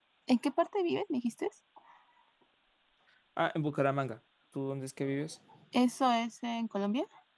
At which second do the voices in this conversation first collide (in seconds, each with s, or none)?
none